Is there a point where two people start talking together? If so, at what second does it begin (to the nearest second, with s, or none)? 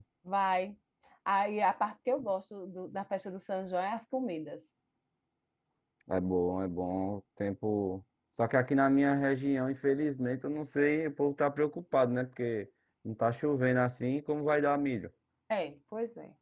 none